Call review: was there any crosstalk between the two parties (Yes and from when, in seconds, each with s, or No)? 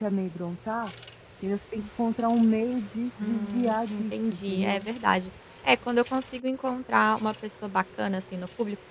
Yes, from 3.2 s